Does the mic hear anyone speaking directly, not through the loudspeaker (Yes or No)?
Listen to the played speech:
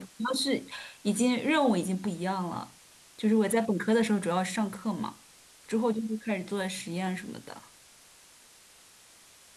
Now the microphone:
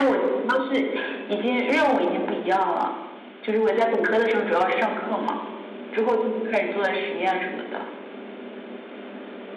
No